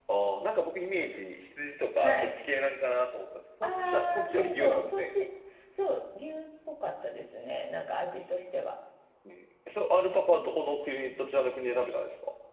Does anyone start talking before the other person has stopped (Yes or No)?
Yes